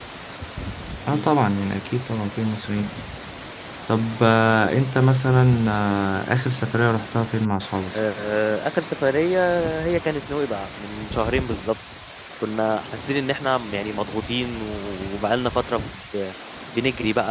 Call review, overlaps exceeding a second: none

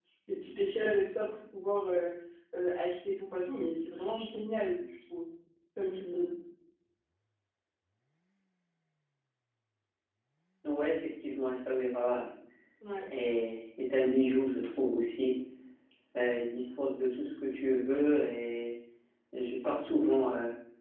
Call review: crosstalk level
none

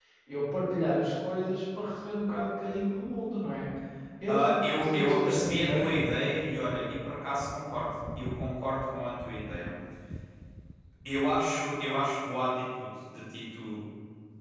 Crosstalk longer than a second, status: present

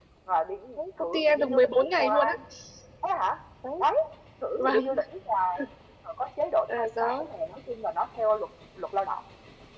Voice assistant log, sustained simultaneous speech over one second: present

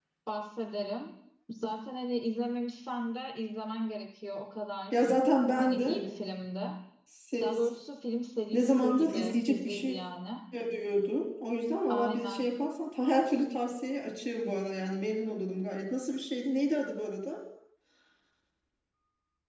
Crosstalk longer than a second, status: present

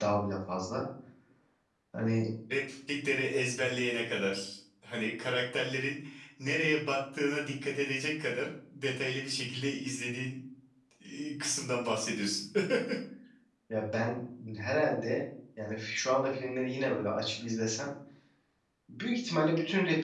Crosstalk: none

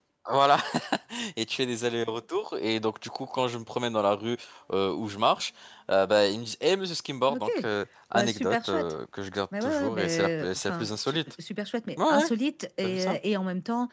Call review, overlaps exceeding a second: present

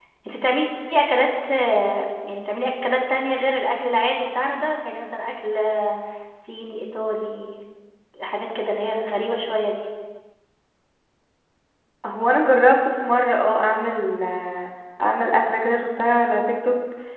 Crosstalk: none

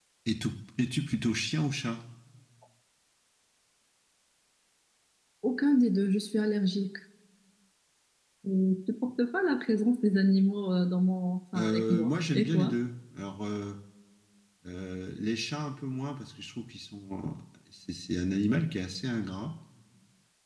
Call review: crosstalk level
present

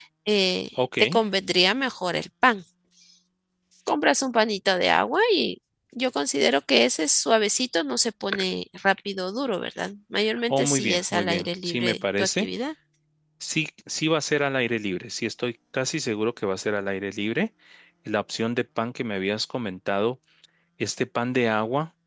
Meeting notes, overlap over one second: present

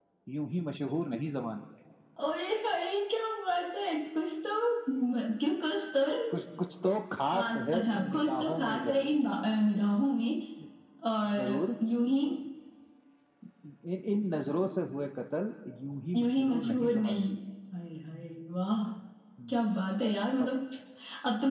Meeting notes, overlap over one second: present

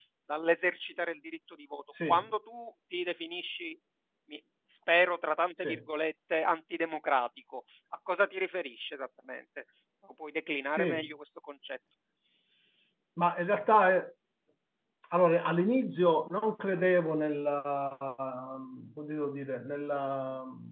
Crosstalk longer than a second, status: none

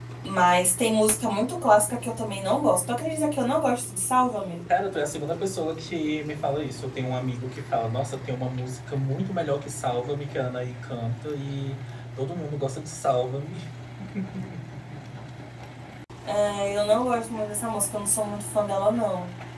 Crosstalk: none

